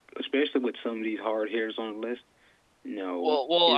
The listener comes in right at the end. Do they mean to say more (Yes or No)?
Yes